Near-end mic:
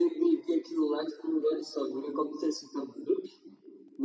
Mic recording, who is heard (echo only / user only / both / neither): echo only